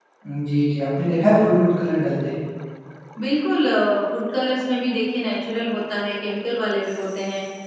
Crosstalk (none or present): none